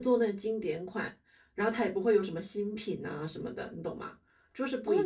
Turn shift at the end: Yes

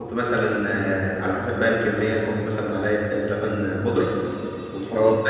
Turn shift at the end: No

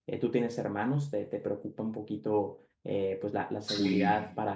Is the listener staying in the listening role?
Yes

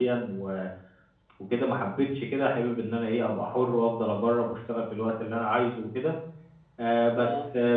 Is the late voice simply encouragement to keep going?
Yes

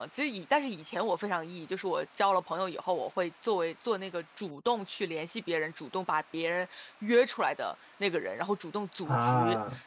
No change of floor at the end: Yes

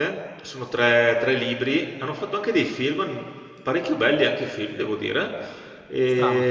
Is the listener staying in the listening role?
Yes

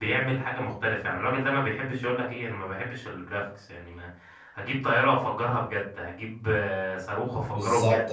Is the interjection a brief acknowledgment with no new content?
Yes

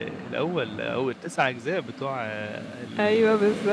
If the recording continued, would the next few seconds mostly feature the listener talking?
Yes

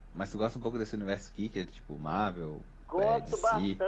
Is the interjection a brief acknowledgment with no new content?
No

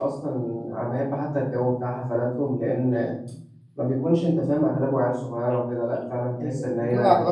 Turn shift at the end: Yes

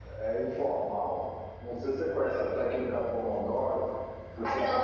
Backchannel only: No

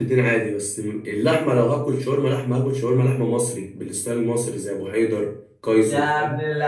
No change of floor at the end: No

